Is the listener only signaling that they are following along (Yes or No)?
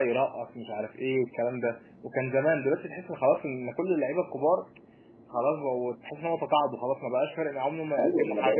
No